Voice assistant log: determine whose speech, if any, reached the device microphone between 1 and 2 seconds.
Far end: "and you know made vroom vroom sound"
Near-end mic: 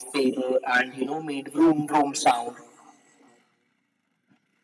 echo only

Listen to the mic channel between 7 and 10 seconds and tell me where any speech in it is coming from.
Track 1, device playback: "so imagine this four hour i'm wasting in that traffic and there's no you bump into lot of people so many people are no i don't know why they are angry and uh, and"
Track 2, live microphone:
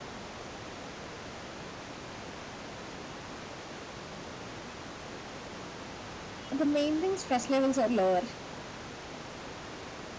user only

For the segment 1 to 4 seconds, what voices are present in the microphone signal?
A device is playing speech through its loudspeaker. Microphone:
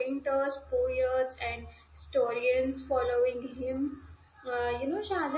user only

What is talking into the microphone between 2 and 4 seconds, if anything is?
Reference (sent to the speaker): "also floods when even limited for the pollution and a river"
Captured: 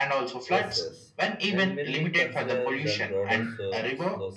both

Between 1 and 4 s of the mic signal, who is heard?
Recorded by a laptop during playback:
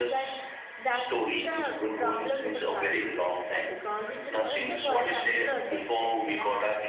both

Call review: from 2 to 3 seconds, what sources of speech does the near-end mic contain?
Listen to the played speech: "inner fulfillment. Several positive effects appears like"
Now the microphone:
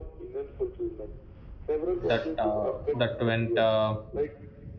both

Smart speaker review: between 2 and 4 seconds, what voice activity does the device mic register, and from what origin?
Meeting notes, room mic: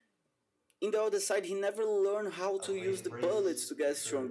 both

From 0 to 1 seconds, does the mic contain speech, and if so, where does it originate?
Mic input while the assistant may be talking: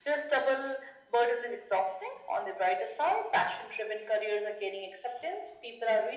echo only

